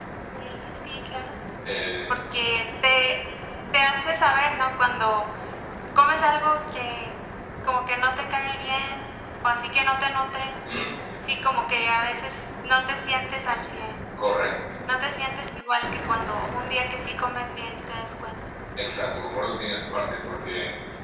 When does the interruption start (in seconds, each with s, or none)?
none